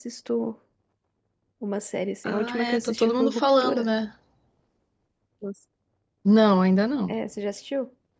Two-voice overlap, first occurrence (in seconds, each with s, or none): 2.2 s